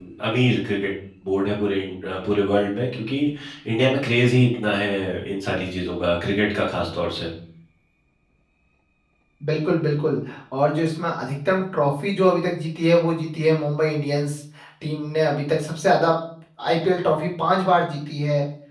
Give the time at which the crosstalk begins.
none

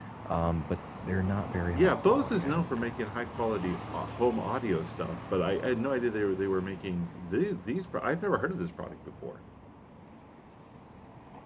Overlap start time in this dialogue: 1.7 s

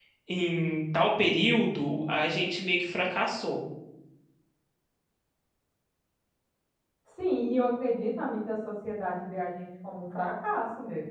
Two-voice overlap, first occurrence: none

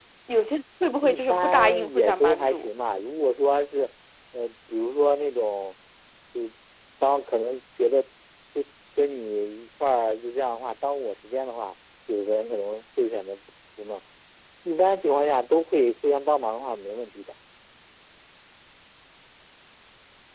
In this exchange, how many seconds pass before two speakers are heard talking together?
1.0 s

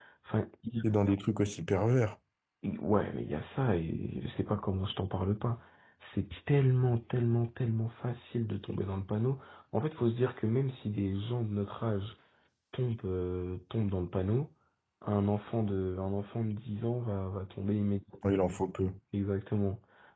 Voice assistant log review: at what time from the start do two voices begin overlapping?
none

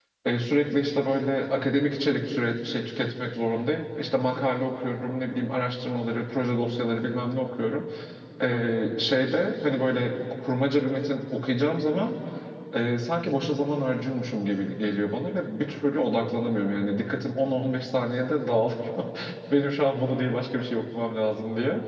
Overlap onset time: none

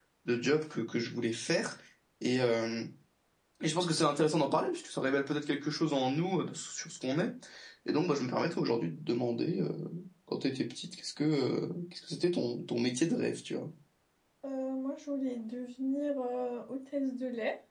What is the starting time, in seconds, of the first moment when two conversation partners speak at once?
none

